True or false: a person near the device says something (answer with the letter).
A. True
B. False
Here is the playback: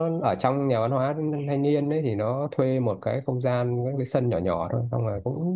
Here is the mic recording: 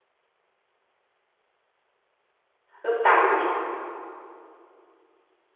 A